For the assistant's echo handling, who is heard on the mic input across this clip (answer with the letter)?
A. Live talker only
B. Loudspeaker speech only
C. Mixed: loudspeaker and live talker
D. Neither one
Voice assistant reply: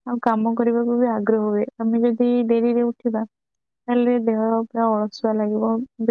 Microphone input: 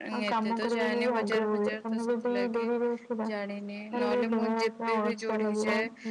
C